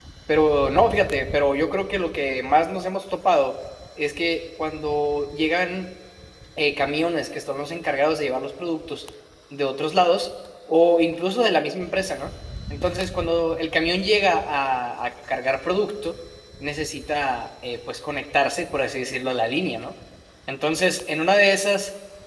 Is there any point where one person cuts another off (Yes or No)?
No